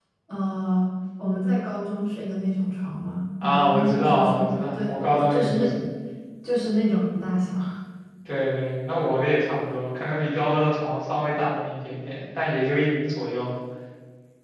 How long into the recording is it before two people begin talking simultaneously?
3.4 s

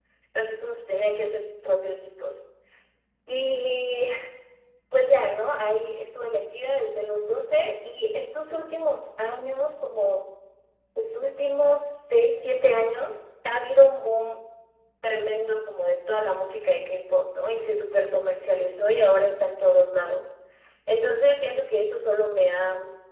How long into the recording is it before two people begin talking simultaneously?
none

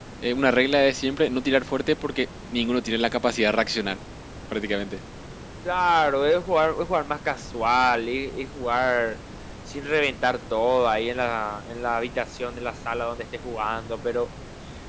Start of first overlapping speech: none

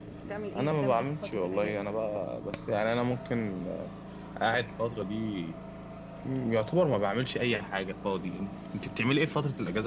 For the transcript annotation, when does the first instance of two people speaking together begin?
0.6 s

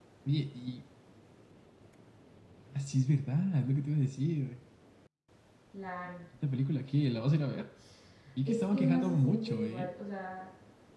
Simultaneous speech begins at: 8.5 s

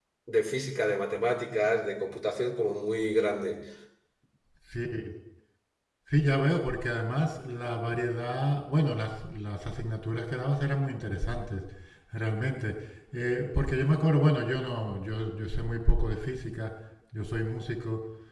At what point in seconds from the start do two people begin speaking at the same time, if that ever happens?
none

